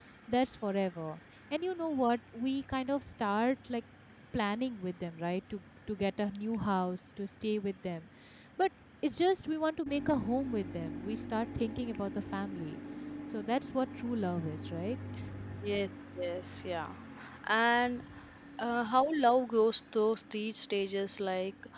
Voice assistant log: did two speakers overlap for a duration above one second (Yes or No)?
No